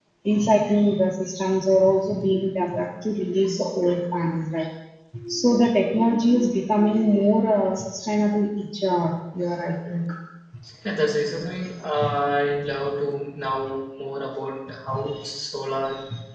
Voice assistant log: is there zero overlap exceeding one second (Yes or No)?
Yes